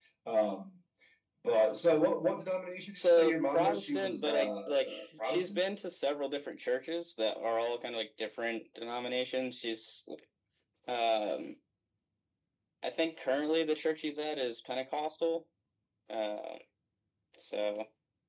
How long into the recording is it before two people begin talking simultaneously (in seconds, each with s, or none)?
3.0 s